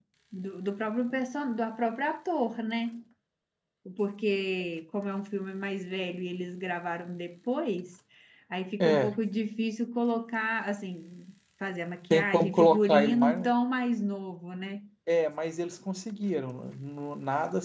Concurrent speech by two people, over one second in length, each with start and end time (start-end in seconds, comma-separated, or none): 12.1-13.4